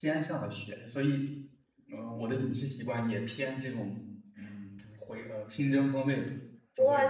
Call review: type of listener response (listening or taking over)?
taking over